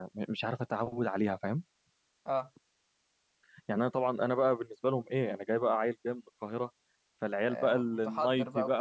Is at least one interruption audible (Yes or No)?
Yes